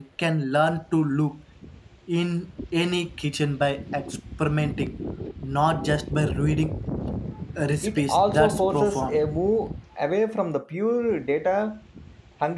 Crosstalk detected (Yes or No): Yes